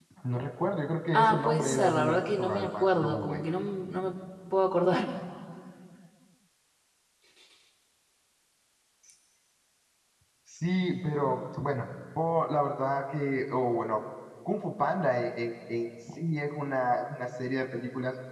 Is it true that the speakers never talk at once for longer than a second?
No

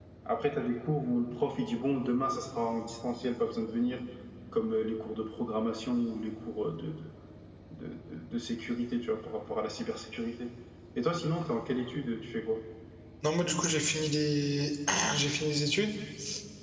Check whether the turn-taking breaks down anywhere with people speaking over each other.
No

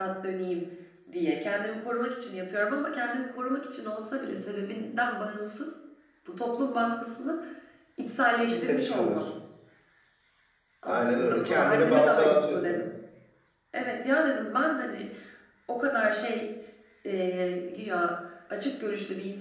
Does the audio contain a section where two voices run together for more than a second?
Yes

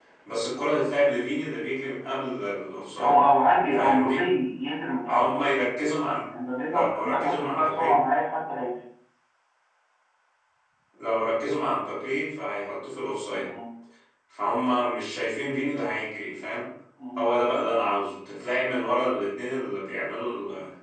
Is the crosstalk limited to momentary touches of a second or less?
No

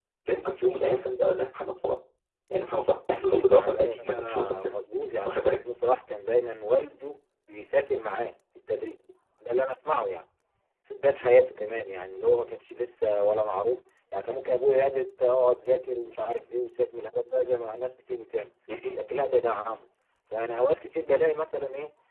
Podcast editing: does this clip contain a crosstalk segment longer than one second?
Yes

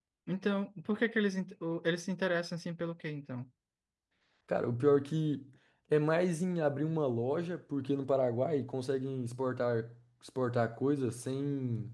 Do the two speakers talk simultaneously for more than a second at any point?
No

